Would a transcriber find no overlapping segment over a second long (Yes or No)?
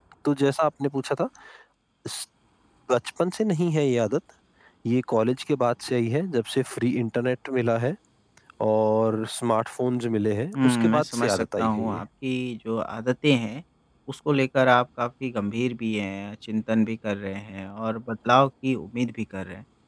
No